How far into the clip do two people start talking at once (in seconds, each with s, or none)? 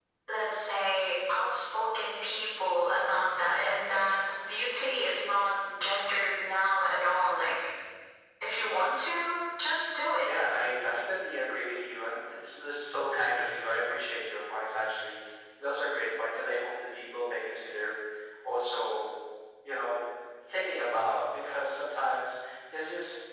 none